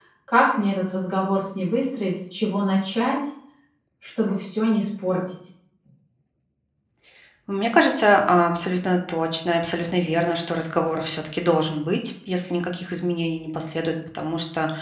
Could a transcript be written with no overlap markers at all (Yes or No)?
Yes